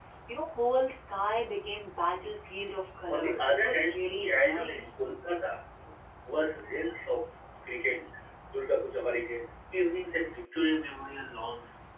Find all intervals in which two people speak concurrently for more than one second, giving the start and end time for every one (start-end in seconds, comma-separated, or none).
3.1-4.9